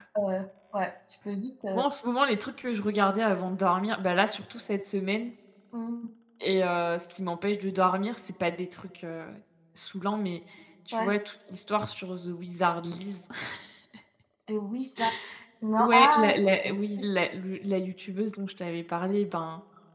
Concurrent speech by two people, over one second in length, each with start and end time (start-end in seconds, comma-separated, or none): 15.8-17.0